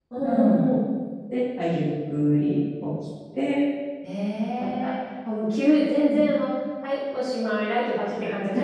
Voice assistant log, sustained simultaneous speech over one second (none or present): none